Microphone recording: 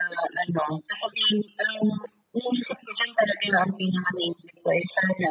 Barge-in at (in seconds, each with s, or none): none